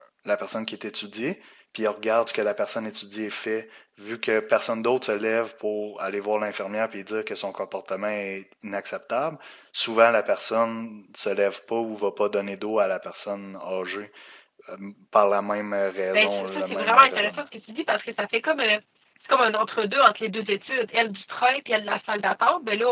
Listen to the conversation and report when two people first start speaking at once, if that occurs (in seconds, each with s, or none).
16.1 s